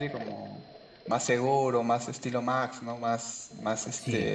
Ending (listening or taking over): listening